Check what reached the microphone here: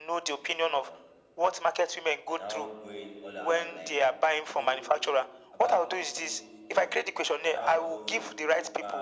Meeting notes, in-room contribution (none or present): present